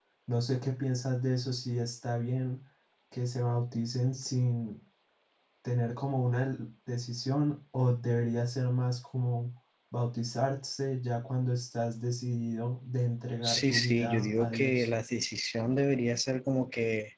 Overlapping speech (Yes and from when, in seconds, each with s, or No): Yes, from 13.4 s